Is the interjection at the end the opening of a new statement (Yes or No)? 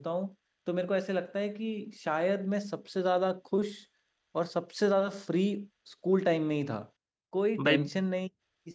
No